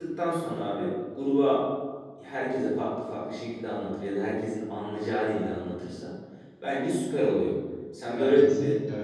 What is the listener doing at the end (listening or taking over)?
taking over